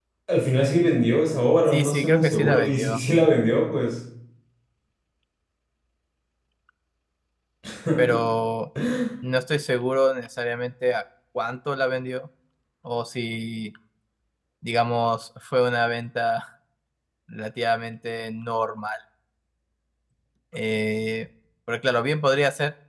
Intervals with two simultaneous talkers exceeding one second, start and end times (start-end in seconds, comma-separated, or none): 1.7-3.0